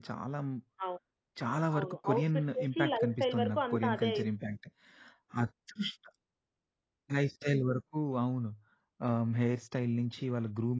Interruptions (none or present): present